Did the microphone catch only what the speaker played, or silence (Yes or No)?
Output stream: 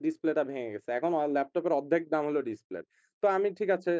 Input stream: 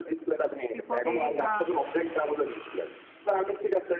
No